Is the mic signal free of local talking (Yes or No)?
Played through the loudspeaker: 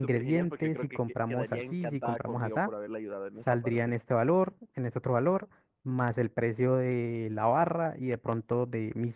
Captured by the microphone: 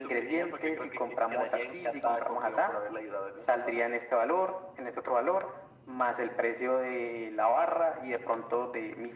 Yes